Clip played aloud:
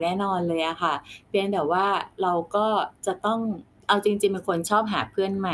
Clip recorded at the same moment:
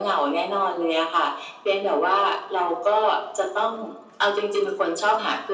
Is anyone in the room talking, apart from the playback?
No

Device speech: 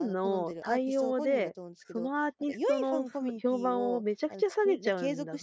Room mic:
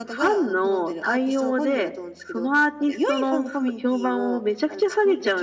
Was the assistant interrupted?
No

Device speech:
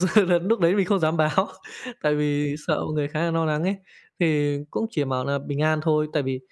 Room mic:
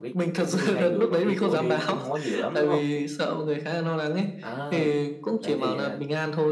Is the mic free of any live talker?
No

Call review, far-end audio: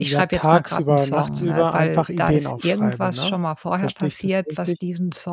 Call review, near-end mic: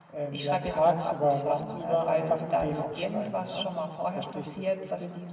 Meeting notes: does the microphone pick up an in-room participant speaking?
No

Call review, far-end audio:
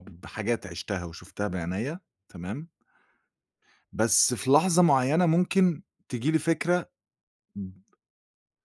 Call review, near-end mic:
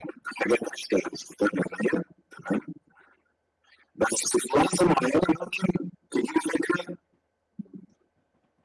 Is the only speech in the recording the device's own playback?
Yes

